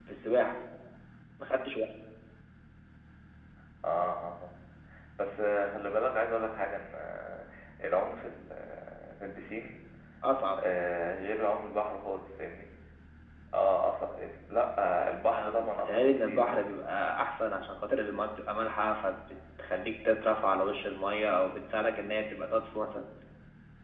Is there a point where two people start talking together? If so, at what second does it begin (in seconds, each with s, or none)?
15.3 s